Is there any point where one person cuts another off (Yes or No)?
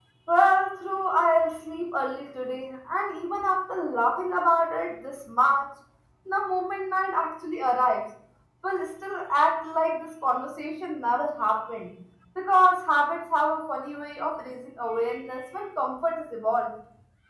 No